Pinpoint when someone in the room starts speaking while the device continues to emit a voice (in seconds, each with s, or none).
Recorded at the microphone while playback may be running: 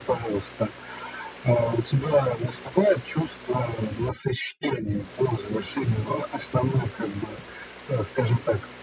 none